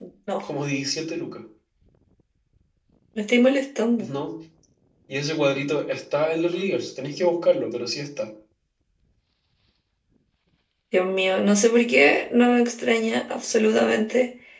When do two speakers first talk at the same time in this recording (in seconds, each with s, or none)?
none